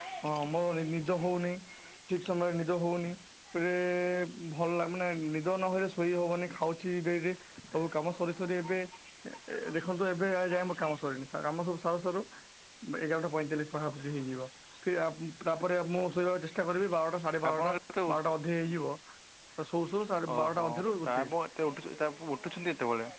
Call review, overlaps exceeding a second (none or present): none